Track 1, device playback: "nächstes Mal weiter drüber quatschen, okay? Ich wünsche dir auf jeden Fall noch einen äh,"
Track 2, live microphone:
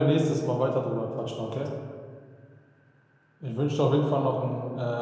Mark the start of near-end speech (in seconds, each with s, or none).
none